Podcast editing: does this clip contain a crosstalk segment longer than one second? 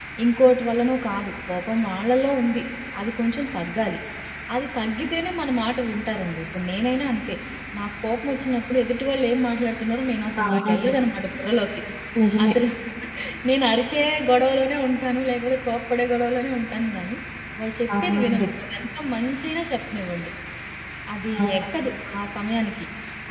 No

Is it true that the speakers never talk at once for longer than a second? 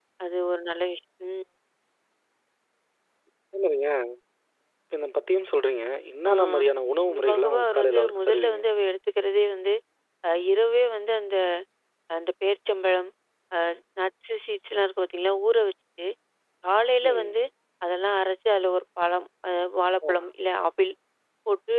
No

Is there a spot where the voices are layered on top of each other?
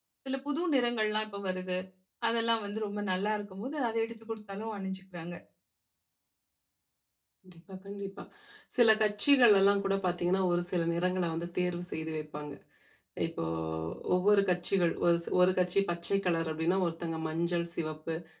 No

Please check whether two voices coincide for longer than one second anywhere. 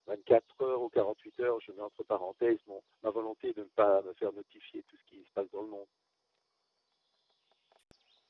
No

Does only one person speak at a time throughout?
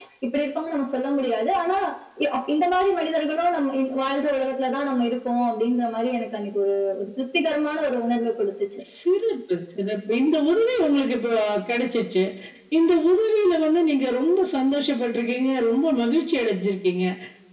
Yes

